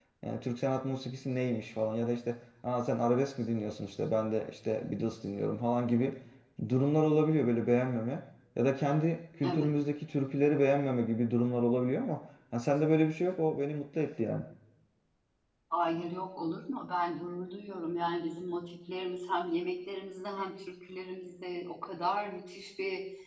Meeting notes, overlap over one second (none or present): none